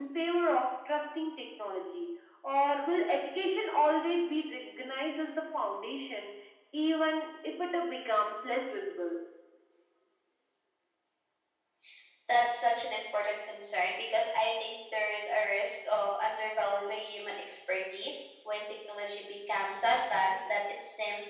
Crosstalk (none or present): none